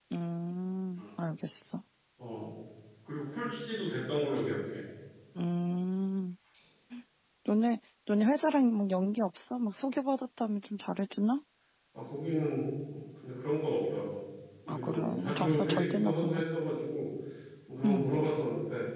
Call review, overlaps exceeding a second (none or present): present